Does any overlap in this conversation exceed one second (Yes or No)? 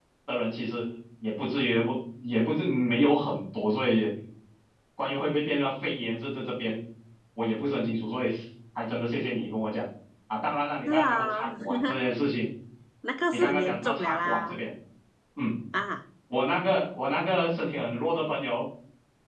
Yes